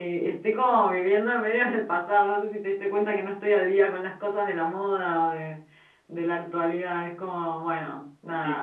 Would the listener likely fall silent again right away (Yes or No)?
No